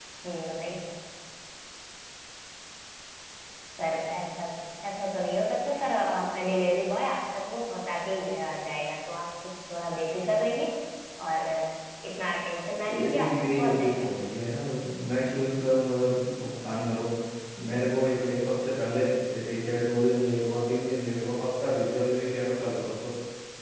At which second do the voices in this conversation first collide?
12.9 s

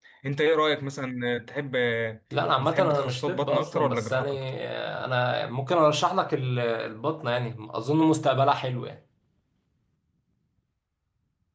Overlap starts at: 2.6 s

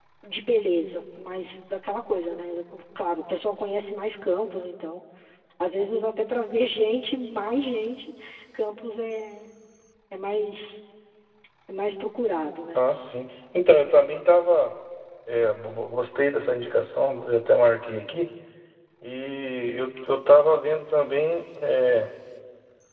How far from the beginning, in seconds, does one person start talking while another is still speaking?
none

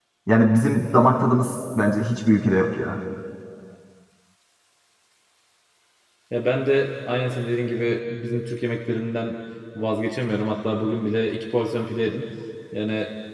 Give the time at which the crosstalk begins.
none

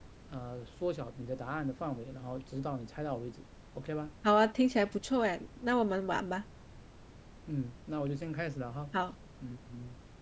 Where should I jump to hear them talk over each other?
none

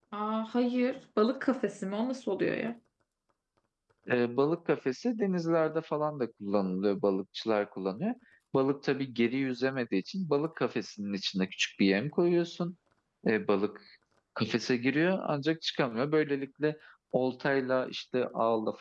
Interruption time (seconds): none

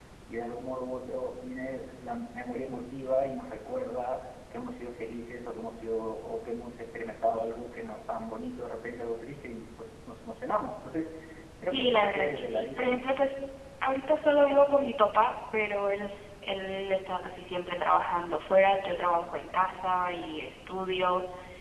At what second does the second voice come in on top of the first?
11.6 s

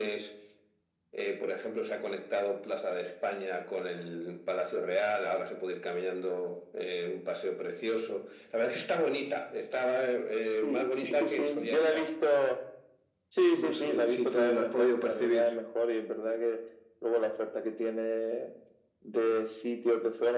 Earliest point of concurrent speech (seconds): 10.4 s

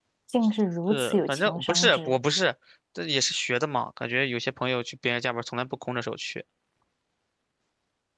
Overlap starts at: 0.9 s

